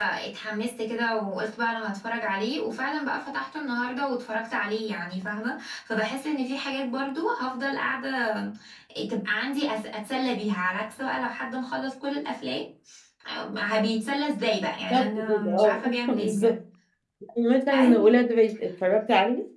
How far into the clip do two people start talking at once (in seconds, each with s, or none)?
14.9 s